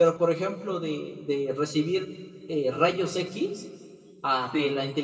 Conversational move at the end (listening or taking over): listening